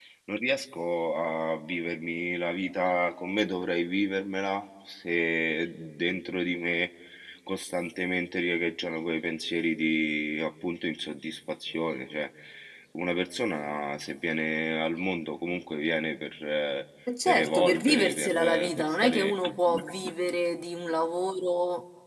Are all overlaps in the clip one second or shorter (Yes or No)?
No